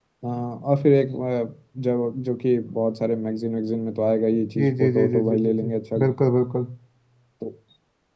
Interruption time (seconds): 4.5 s

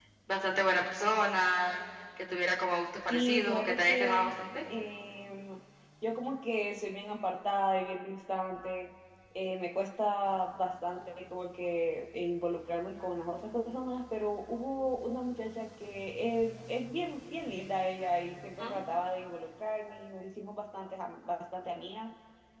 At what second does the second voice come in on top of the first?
3.1 s

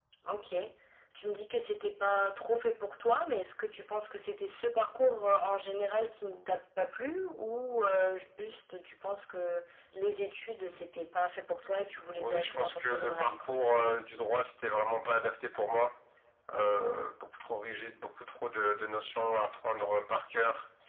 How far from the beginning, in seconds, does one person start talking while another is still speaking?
12.2 s

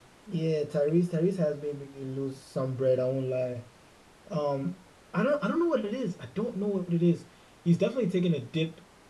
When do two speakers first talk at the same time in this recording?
none

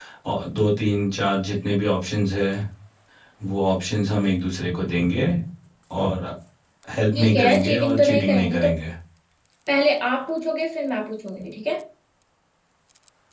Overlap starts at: 7.2 s

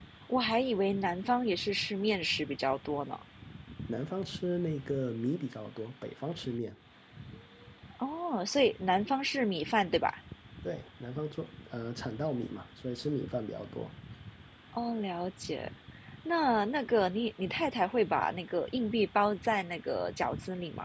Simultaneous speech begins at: none

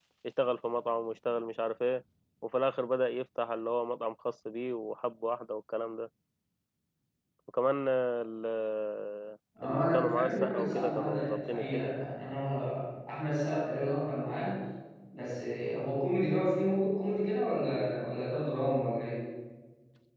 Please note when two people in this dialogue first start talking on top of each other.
9.6 s

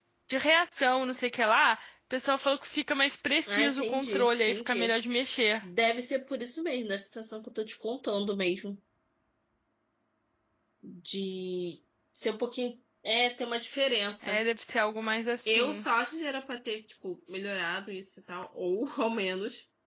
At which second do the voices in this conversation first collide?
3.5 s

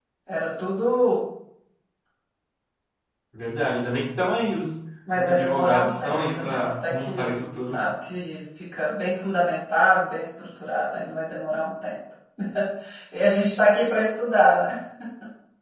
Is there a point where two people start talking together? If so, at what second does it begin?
5.1 s

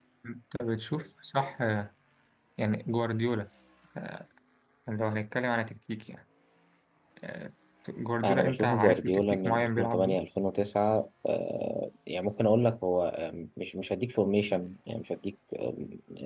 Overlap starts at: 8.2 s

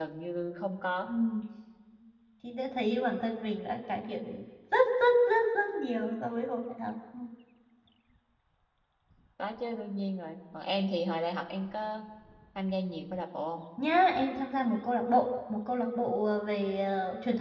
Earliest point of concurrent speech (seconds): none

